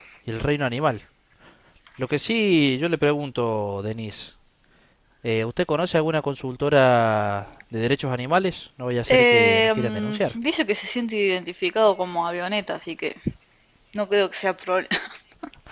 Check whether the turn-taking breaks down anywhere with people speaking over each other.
Yes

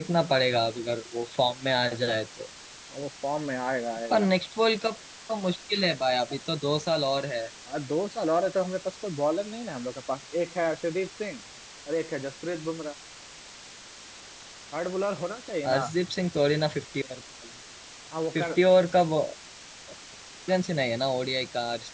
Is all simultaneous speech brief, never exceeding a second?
Yes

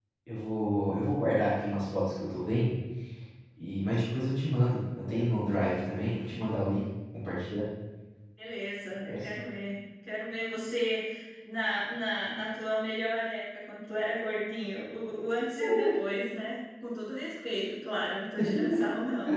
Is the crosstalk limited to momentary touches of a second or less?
Yes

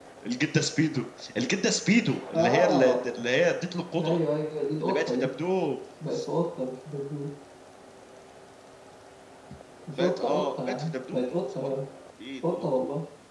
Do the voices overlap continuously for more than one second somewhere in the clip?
Yes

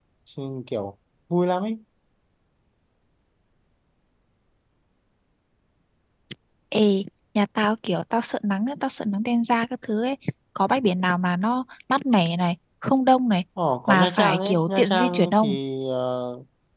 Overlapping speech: Yes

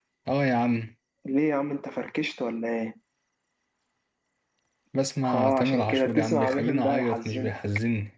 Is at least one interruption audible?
Yes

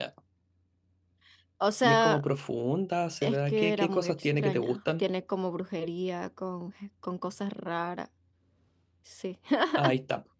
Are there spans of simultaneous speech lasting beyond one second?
Yes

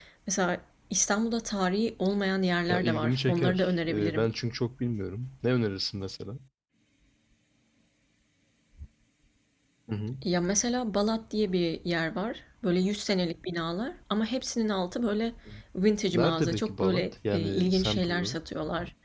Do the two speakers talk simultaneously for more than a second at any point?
Yes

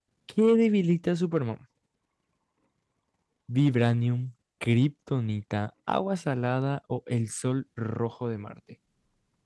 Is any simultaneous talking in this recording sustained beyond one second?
No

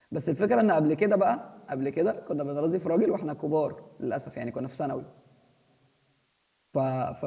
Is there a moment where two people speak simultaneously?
No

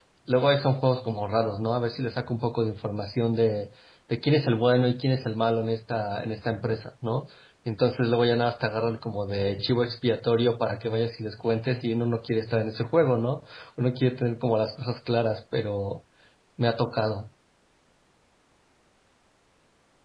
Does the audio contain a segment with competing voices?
No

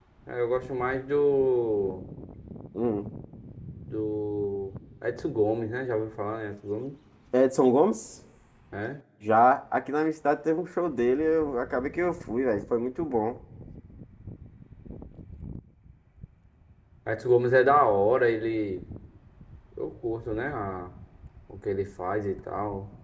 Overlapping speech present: No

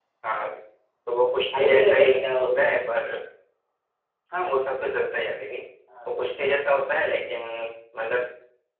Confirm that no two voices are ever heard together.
No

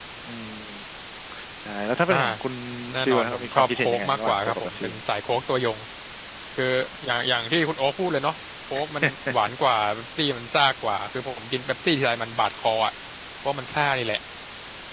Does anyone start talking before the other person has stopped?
Yes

